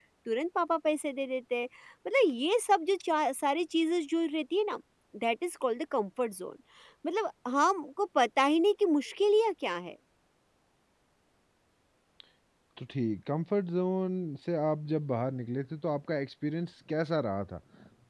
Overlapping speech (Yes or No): No